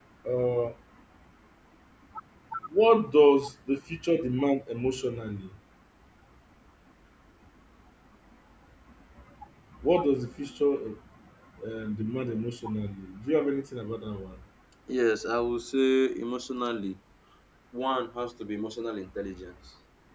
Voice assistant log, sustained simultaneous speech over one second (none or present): none